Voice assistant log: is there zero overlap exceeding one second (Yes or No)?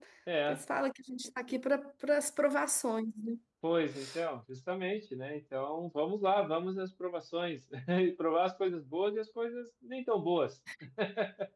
Yes